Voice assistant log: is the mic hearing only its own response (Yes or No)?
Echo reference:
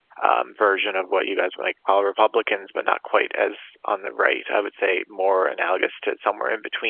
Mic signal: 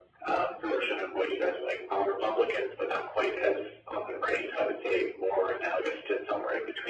Yes